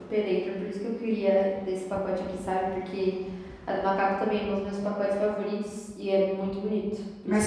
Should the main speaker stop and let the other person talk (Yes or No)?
Yes